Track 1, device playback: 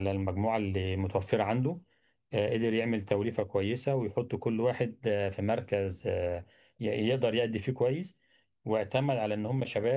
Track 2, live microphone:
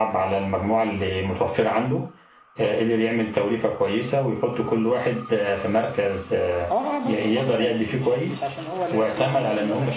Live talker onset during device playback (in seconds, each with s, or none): 6.7 s